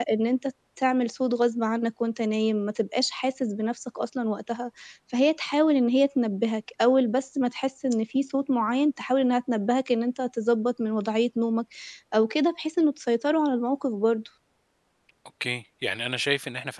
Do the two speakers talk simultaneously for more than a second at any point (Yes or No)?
No